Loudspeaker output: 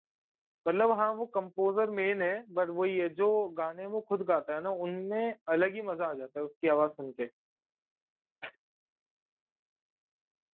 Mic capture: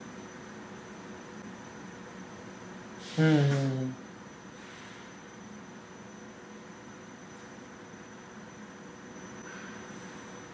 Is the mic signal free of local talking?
No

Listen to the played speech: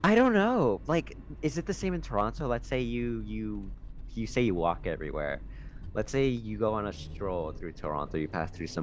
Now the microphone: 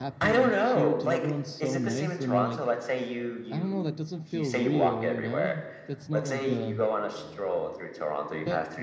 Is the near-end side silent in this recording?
No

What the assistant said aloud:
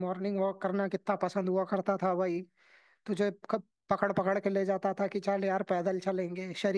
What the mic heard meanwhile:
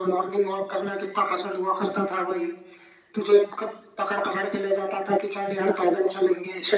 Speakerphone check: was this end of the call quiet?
Yes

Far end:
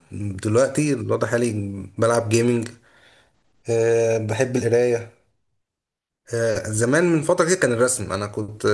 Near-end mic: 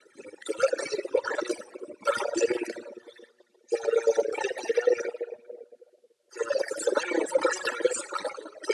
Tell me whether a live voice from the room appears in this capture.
No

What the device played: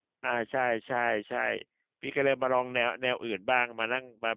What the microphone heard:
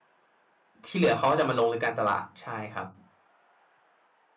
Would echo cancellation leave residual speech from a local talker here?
Yes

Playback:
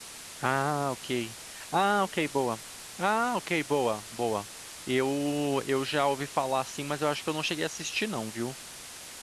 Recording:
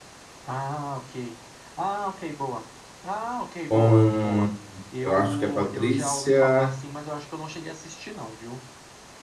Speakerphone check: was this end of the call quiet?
No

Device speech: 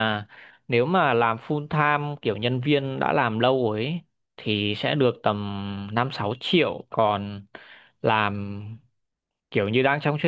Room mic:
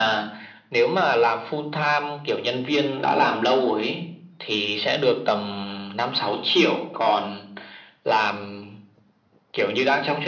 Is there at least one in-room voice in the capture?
No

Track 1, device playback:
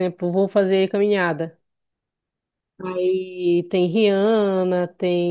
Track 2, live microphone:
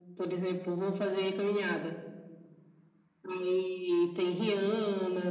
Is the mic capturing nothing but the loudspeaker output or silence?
Yes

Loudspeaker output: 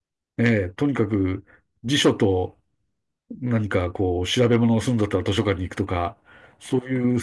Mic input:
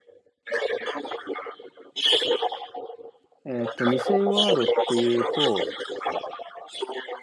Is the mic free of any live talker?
No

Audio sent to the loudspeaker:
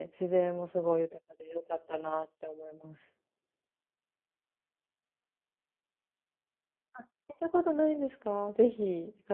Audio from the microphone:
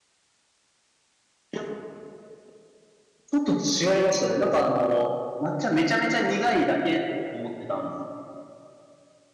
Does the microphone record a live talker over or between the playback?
Yes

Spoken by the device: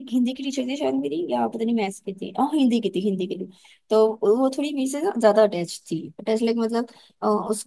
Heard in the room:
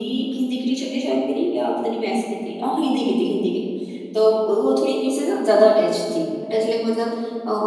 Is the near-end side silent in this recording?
Yes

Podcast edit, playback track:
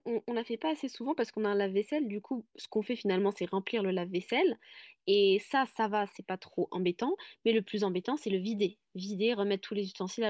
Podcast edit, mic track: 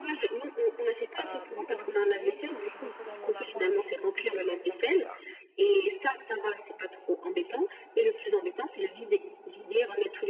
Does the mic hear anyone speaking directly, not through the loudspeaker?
Yes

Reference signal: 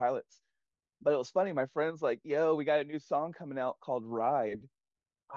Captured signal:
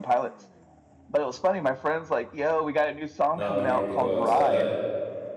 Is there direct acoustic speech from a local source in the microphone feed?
Yes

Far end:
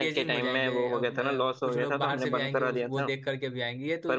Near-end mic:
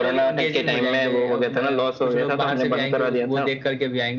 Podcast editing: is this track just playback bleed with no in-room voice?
Yes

